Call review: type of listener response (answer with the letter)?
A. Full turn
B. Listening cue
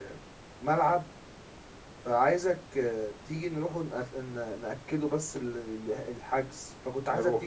B